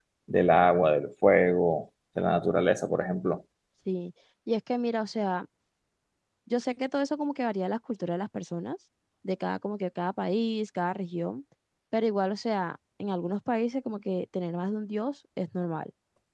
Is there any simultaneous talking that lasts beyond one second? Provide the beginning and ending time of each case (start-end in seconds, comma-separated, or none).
none